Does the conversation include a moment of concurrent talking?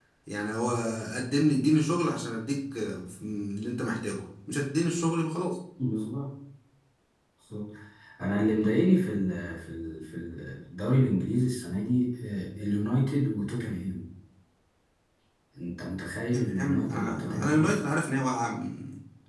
Yes, from 16.2 s

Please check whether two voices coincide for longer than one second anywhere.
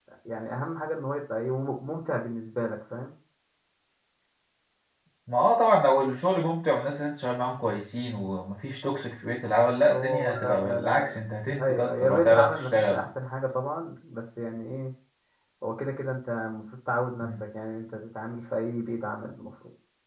Yes, from 9.9 s

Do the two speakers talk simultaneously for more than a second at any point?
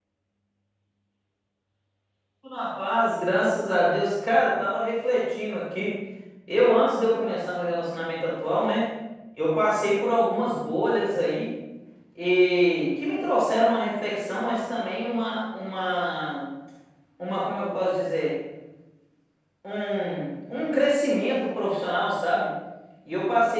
No

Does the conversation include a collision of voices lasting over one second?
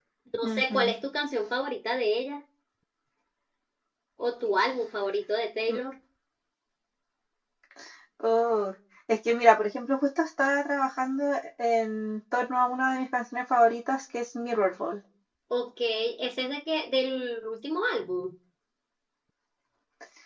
No

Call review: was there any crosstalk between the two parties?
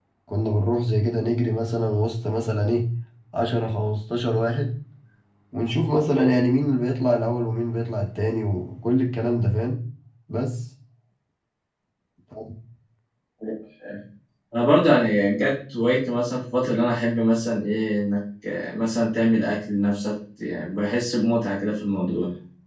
No

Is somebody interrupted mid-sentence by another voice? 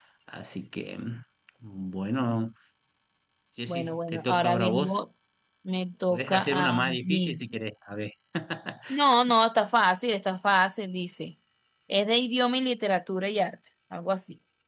Yes, from 3.7 s

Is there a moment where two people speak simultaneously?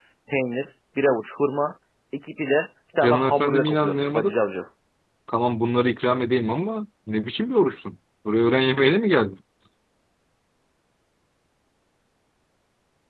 Yes, from 3.0 s

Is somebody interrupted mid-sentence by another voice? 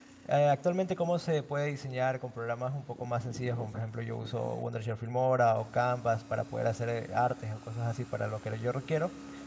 No

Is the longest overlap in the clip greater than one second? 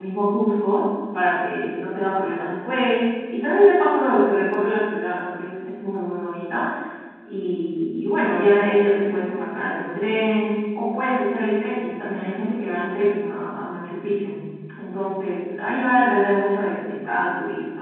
No

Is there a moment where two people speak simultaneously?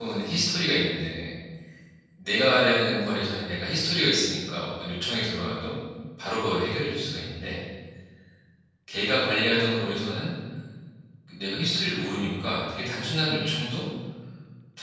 No

